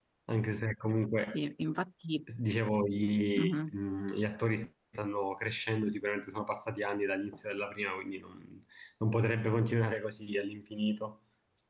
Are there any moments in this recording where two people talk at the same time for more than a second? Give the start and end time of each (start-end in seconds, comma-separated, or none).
none